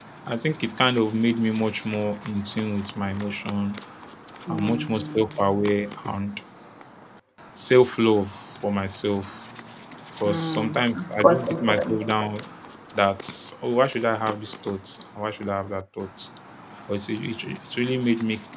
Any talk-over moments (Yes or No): Yes